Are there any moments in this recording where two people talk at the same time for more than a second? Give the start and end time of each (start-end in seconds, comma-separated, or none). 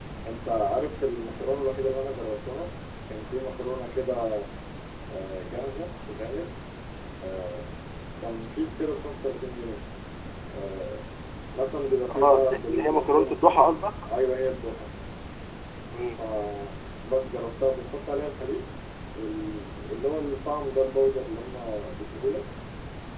12.1-13.4